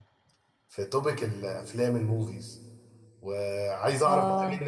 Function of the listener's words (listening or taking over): listening